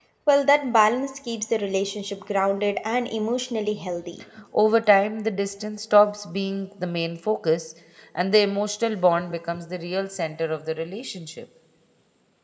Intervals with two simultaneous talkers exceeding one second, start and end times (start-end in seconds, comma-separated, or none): none